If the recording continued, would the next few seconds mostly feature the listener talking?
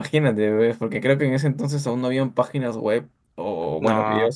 No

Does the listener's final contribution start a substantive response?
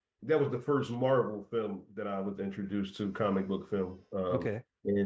No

